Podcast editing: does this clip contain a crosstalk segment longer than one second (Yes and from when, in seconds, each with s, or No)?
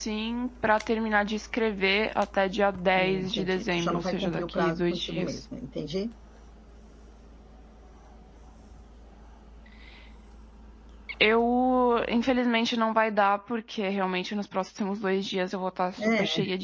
Yes, from 3.0 s